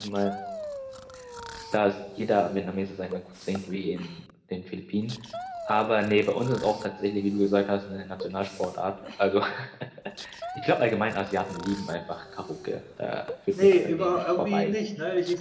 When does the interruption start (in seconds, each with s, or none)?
13.5 s